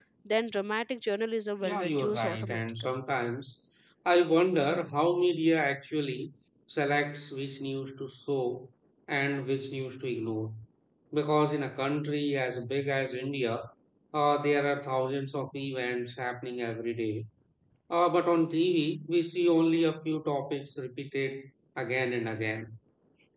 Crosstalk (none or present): present